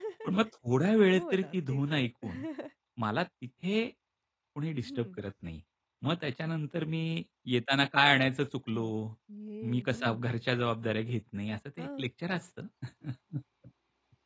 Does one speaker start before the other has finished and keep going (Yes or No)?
Yes